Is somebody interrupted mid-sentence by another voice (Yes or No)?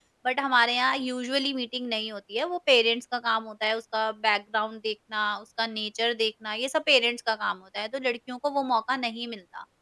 No